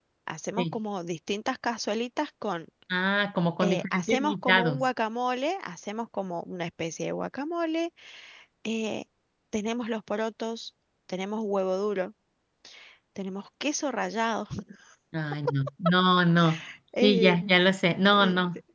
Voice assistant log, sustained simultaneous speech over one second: present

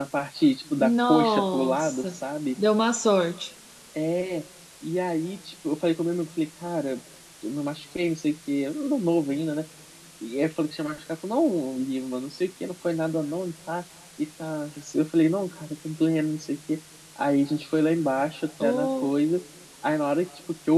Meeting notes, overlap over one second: present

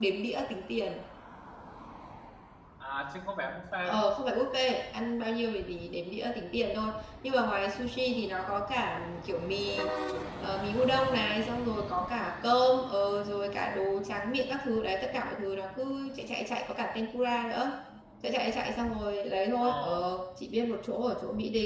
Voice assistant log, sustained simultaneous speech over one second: none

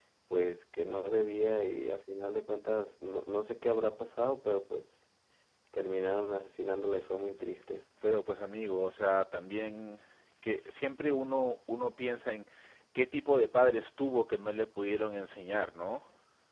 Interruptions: none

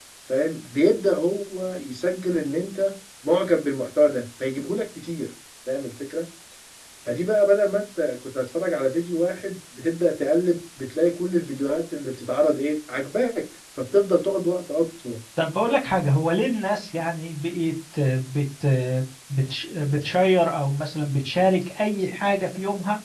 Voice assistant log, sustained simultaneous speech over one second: none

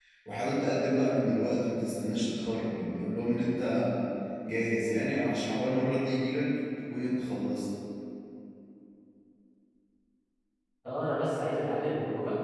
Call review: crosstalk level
none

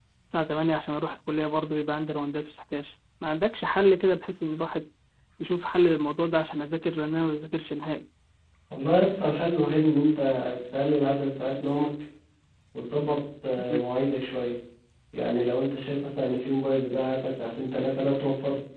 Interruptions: none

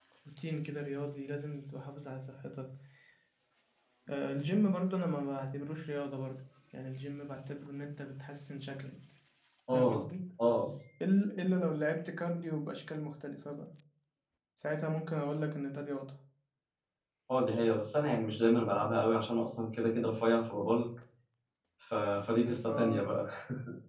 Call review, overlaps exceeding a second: none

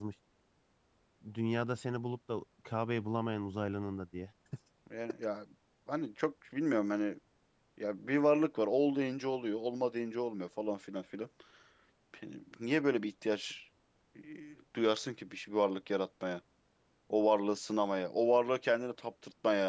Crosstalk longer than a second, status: none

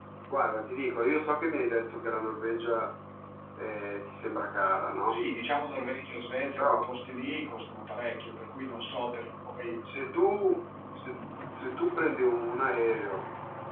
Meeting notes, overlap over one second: none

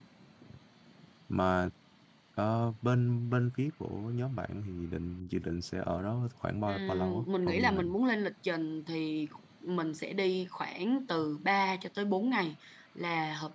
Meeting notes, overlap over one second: present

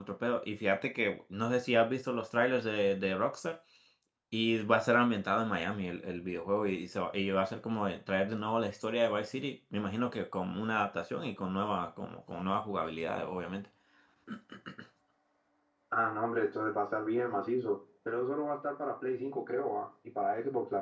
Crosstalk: none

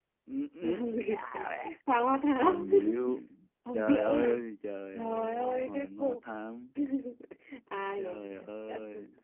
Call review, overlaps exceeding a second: present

